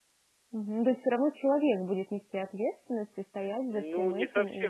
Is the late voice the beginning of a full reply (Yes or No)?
Yes